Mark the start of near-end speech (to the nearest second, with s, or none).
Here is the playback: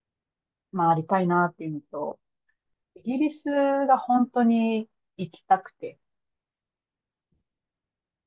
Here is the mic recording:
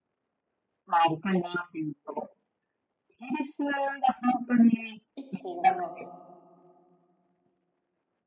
5 s